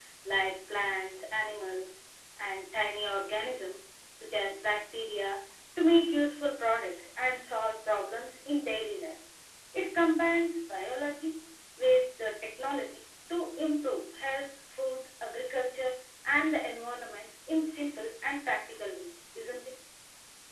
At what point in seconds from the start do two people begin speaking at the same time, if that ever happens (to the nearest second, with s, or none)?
none